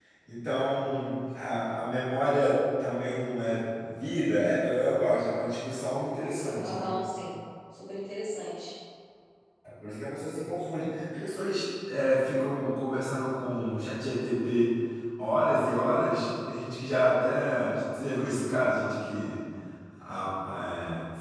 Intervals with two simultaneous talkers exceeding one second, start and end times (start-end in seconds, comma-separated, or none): none